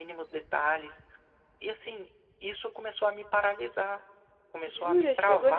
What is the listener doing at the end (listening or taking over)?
taking over